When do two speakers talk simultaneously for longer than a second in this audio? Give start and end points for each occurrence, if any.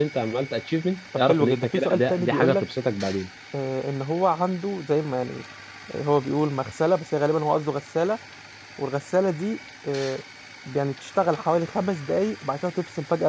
1.1-2.6

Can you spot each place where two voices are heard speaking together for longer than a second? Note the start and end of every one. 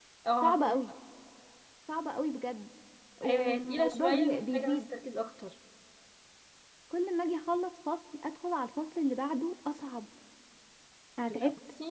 3.2-4.8

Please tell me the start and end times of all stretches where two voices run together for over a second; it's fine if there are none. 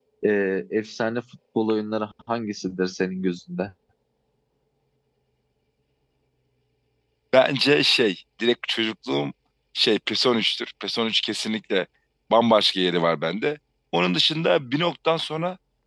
none

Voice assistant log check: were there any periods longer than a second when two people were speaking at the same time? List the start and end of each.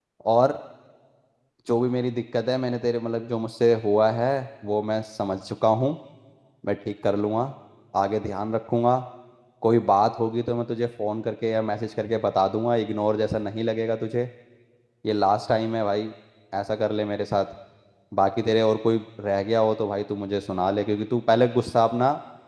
none

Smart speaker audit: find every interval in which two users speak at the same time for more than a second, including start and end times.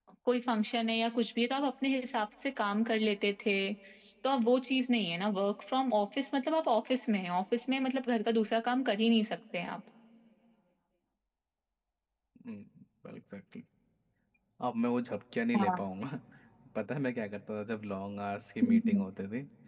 none

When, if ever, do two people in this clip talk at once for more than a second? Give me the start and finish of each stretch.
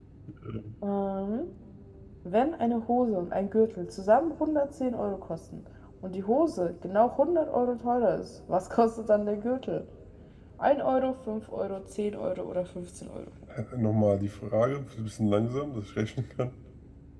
none

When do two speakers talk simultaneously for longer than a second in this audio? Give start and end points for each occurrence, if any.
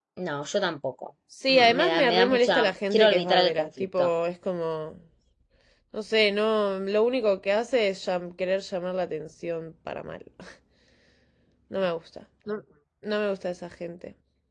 1.5-4.1

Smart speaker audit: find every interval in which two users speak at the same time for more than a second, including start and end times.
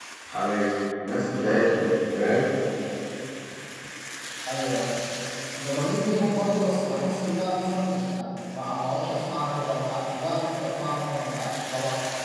none

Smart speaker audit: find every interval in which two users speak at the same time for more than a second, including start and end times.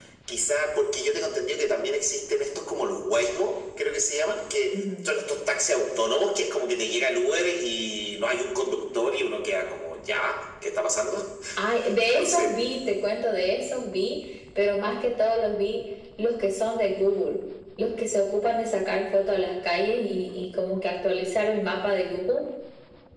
none

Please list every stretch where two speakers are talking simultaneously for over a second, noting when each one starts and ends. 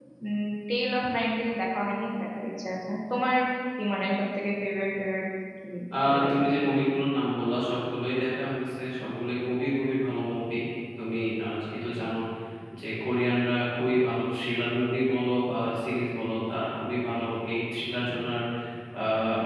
none

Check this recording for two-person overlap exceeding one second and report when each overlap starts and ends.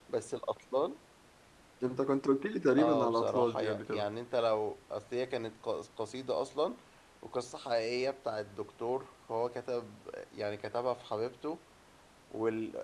2.8-4.1

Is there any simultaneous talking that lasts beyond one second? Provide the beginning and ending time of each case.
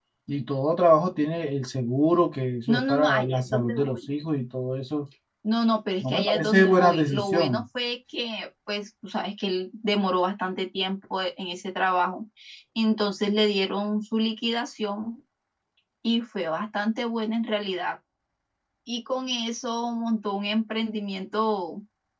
2.7-4.1, 6.0-7.6

